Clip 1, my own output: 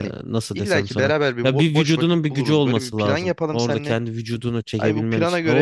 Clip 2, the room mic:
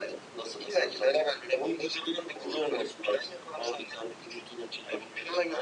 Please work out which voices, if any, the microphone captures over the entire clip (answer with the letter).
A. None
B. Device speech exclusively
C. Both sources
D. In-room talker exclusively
B